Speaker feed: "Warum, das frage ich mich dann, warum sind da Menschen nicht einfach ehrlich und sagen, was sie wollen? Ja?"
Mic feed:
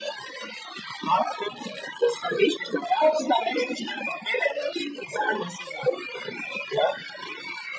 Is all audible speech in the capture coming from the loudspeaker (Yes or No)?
Yes